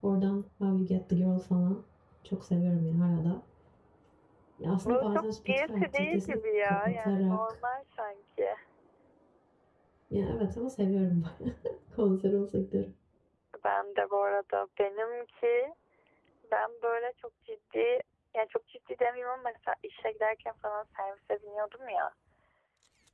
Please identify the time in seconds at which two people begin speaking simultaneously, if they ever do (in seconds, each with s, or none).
4.8 s